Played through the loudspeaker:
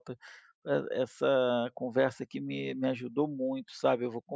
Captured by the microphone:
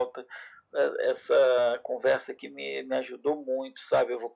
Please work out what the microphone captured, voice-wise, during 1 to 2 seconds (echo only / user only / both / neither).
echo only